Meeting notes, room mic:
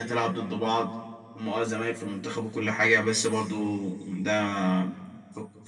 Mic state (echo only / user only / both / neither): echo only